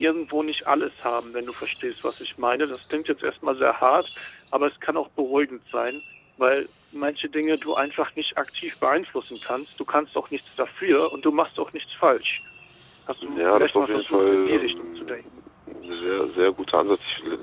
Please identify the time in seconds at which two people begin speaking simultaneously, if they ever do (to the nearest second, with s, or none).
13 s